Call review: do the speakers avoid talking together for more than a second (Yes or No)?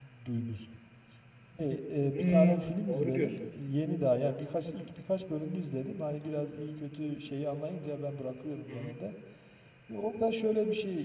No